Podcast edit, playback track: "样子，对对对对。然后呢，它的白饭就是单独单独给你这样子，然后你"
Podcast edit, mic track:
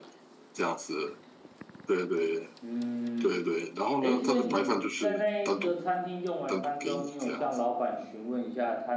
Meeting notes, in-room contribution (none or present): present